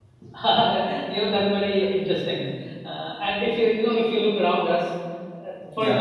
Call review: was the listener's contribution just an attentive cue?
Yes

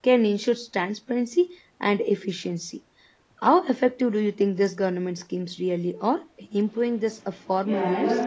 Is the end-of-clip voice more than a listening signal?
Yes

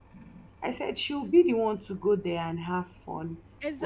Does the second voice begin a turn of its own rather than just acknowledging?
Yes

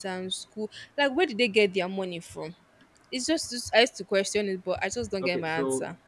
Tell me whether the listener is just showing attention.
No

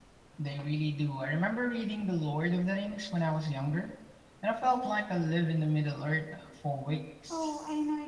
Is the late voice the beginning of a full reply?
Yes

